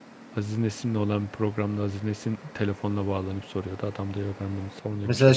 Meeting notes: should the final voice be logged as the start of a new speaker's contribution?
Yes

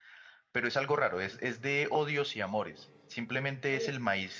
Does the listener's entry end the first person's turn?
No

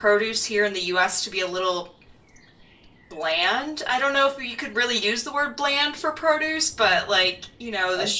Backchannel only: Yes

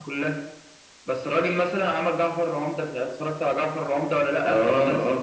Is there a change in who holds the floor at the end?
Yes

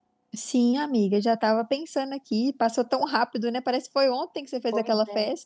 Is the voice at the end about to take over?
Yes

